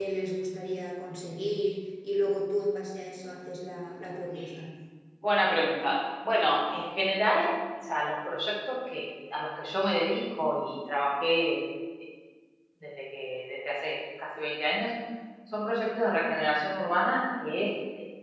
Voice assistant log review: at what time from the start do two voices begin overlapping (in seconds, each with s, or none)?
none